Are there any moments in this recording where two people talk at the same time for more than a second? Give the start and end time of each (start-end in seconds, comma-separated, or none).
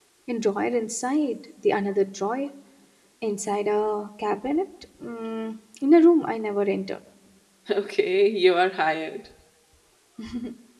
none